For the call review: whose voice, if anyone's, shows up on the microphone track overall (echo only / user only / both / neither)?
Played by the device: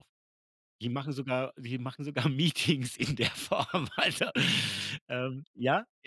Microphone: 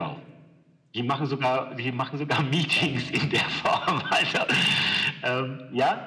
both